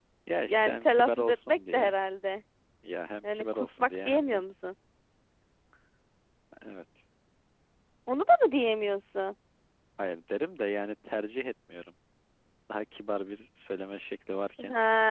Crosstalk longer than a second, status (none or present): present